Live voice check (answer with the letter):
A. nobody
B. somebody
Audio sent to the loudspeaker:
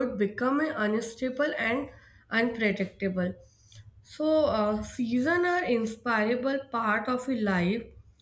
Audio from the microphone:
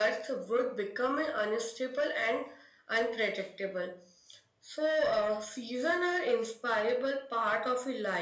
A